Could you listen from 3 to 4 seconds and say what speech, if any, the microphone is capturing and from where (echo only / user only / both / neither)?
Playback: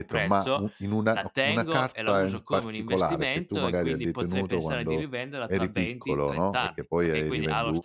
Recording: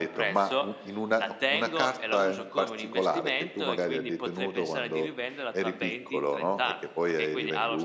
echo only